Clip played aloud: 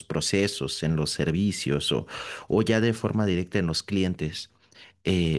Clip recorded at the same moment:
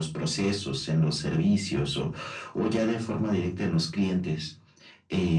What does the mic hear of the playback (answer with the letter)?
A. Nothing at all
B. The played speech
B